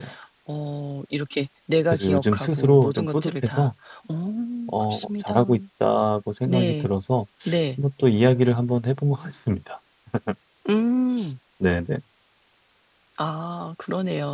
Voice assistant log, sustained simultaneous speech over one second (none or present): present